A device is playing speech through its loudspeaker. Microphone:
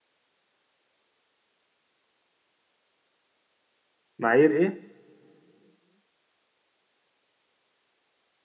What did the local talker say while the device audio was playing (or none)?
معايير ايه